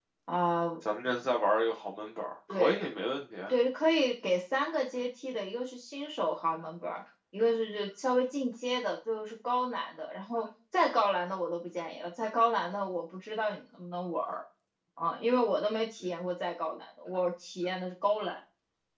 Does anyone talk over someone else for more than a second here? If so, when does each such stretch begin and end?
none

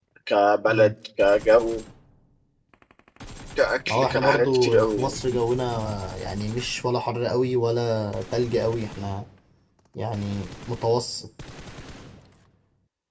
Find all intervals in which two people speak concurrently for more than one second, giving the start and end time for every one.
3.9-5.2

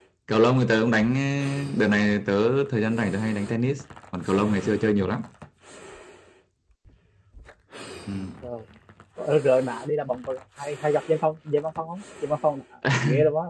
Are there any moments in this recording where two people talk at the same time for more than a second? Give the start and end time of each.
none

